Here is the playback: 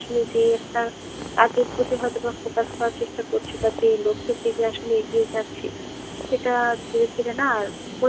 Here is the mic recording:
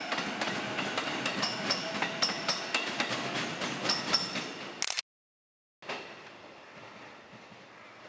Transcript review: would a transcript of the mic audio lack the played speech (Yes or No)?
Yes